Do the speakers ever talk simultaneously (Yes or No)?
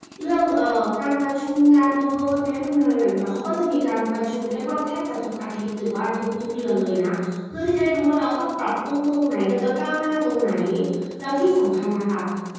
No